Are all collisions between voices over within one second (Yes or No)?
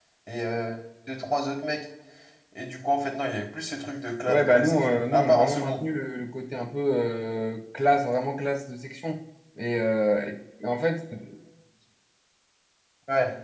No